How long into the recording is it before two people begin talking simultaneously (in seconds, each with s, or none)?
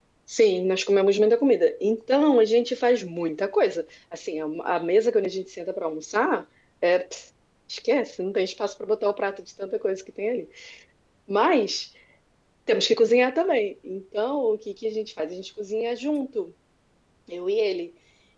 none